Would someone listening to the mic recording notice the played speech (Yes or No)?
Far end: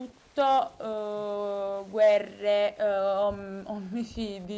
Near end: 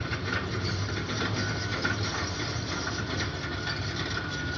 No